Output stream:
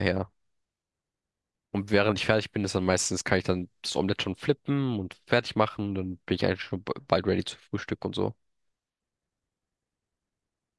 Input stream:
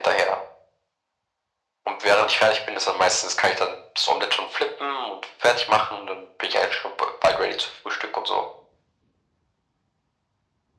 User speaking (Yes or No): No